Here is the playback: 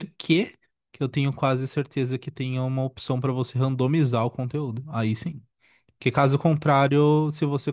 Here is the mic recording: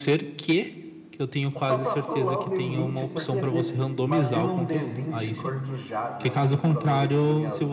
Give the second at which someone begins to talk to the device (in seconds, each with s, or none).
1.6 s